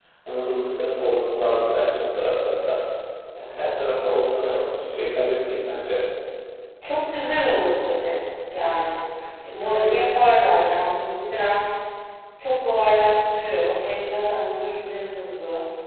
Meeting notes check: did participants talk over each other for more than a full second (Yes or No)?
No